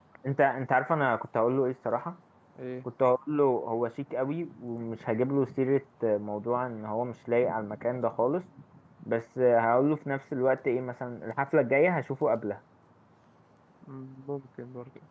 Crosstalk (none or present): none